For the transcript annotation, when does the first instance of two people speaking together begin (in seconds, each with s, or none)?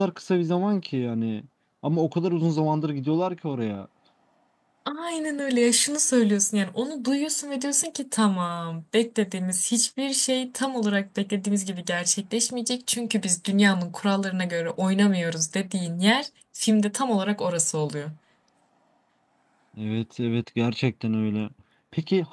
none